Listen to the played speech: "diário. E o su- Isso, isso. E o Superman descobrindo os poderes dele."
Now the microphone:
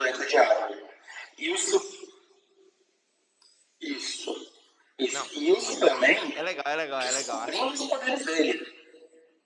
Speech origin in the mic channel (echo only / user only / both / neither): both